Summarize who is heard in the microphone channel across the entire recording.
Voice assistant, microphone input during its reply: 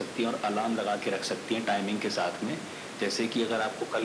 echo only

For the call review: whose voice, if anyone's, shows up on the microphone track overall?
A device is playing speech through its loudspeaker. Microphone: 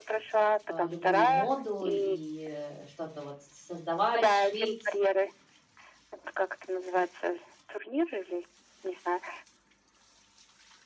both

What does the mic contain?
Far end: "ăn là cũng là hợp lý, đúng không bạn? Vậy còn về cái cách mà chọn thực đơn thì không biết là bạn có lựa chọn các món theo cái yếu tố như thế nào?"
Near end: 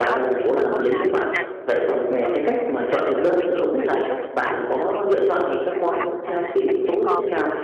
both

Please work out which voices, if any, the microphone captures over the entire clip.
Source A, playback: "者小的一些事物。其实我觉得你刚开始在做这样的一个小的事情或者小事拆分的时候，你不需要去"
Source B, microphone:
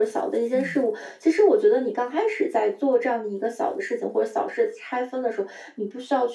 both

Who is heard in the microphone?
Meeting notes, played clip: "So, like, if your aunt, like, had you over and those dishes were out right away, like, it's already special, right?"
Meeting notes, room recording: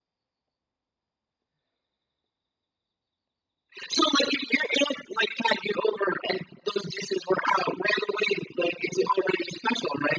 echo only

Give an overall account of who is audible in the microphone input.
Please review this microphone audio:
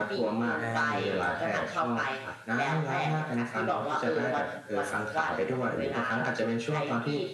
both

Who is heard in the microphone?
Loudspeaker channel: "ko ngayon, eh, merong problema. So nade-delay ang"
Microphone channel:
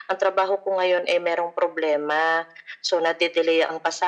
echo only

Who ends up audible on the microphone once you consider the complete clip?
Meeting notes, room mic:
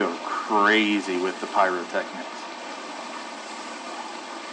echo only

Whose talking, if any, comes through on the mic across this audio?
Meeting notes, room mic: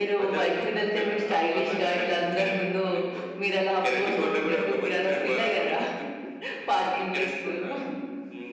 echo only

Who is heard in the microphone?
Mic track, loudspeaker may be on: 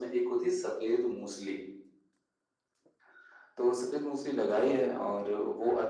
echo only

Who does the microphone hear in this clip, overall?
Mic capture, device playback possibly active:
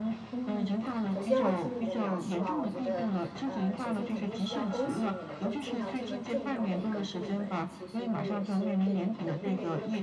both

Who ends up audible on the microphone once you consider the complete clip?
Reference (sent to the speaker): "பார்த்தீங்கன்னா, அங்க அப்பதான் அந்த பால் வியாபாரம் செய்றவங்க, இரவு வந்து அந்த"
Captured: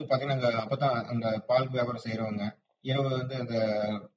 echo only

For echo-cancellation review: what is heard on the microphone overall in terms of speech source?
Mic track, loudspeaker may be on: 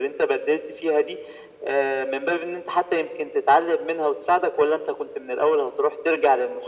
echo only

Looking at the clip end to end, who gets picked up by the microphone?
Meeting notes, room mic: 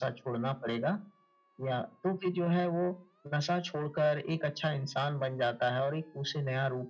echo only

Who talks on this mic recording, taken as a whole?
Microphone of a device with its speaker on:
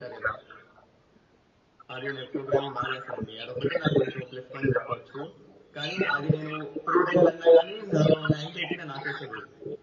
echo only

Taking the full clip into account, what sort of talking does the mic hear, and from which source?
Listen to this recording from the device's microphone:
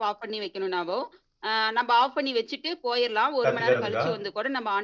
both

